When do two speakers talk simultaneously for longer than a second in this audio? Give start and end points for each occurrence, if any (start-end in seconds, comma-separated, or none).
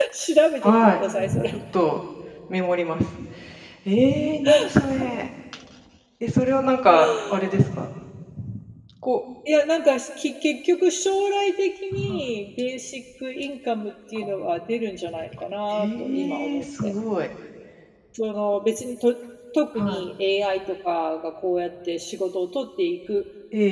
15.7-16.9